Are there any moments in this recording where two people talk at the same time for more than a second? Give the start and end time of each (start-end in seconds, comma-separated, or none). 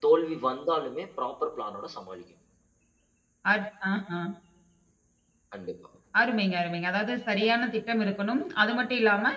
none